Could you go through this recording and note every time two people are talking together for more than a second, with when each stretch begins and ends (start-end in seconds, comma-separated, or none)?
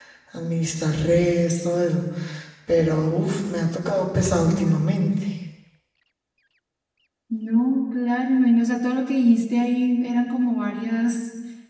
none